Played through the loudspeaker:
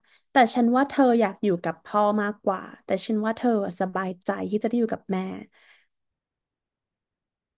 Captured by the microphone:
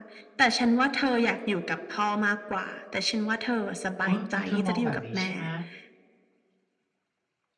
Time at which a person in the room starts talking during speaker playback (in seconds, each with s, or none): 4.0 s